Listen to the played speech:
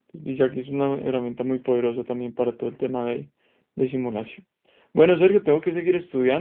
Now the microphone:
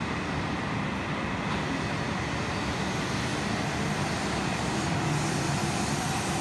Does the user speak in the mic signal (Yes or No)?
No